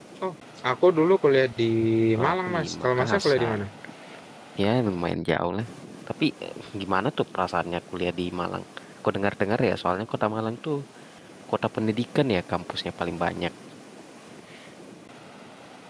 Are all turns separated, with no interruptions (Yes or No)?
No